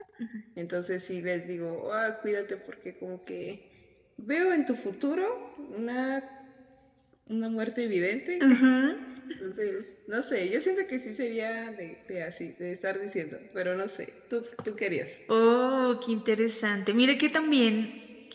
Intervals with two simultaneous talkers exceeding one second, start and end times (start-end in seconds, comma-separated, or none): none